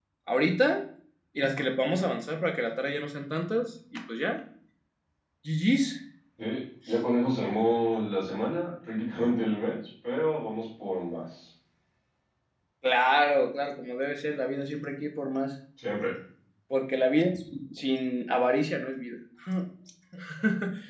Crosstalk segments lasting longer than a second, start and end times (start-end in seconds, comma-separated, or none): none